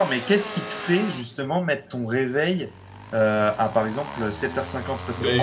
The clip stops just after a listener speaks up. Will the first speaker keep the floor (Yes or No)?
No